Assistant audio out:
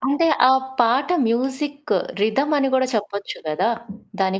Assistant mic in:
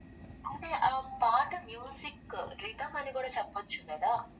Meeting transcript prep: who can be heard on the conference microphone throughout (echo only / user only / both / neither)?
echo only